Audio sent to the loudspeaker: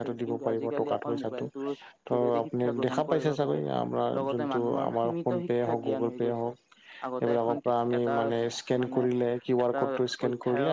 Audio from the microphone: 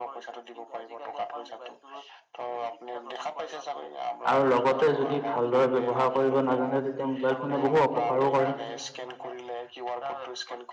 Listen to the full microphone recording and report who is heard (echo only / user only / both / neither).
both